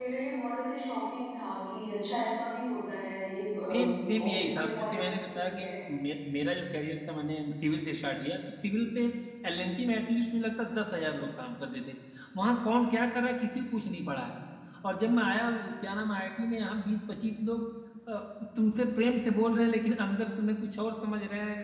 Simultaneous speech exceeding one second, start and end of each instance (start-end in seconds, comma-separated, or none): 3.7-5.7